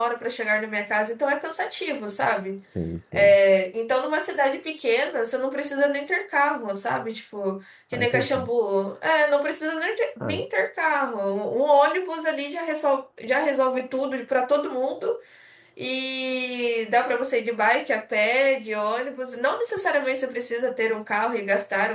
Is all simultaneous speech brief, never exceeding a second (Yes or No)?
Yes